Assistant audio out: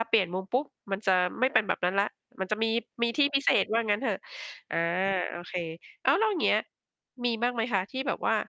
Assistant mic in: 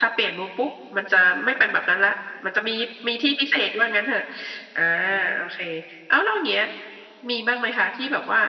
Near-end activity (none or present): none